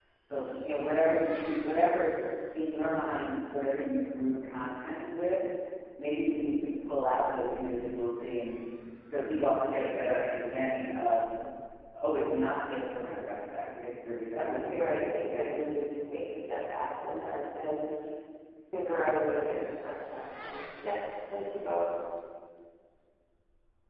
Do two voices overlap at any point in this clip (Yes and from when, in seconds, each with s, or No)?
Yes, from 14.4 s